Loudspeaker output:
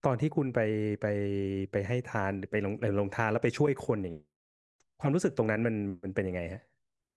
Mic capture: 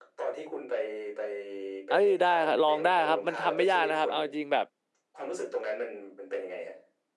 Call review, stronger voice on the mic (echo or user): user